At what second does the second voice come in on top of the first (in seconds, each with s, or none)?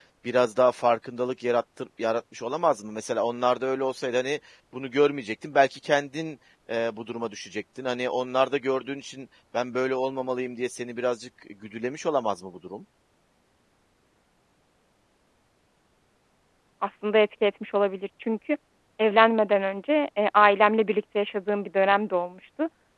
none